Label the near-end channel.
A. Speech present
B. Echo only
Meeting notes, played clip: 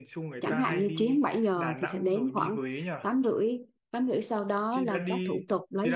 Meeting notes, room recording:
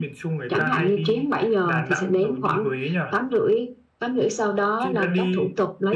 B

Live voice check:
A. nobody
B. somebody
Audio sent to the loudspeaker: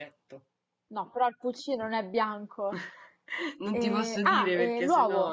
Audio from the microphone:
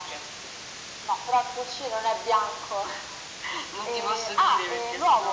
A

